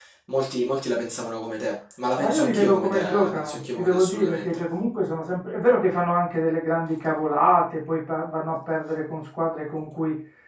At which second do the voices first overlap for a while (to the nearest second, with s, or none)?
2 s